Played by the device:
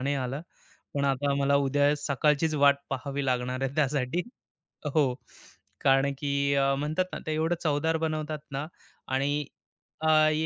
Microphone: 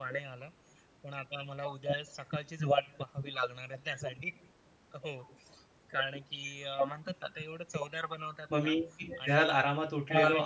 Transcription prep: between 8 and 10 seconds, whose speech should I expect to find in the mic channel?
both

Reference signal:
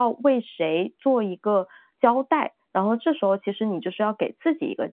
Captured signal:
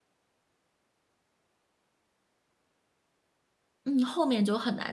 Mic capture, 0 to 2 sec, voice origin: neither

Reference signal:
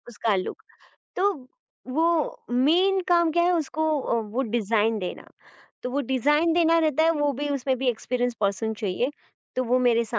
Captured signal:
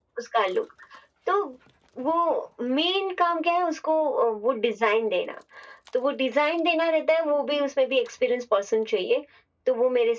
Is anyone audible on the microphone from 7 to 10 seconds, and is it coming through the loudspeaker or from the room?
echo only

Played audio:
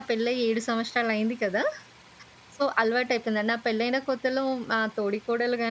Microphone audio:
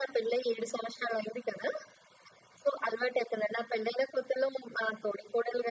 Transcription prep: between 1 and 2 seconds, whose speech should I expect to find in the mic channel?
echo only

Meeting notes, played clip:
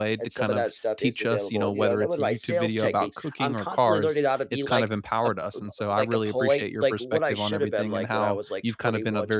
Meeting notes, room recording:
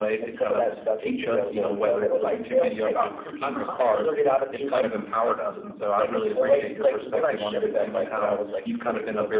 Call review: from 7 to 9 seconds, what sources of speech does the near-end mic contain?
echo only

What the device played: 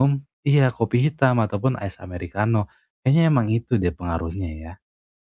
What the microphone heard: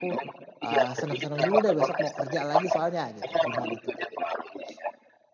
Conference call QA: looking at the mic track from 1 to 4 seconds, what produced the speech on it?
both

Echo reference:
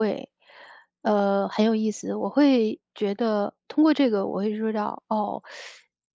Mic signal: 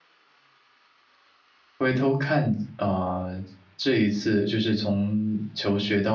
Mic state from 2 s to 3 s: user only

